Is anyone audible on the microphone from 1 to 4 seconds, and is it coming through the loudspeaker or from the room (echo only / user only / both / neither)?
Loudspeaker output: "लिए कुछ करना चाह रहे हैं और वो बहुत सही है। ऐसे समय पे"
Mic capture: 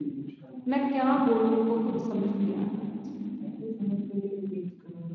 both